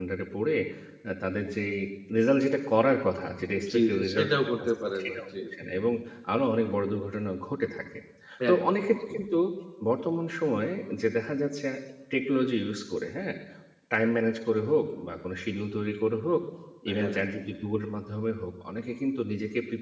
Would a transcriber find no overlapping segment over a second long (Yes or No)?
No